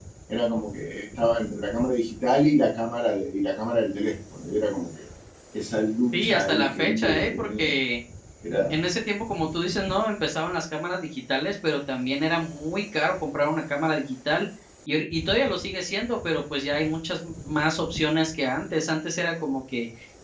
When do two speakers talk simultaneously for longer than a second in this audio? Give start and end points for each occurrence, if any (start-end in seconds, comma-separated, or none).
6.1-7.7